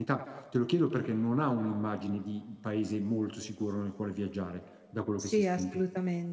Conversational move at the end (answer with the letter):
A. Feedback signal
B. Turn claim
B